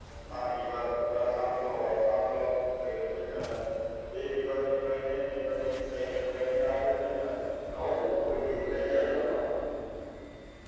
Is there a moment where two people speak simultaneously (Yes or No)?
Yes